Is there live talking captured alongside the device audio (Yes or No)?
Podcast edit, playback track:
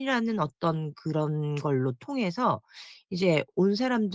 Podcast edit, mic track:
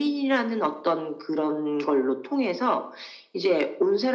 No